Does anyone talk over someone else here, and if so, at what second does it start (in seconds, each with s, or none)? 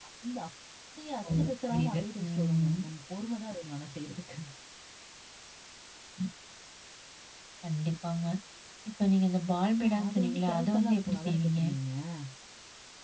1.4 s